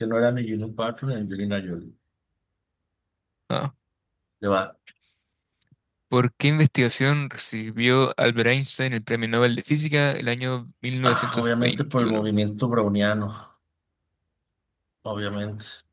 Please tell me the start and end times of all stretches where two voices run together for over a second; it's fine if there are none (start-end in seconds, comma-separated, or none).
11.0-12.3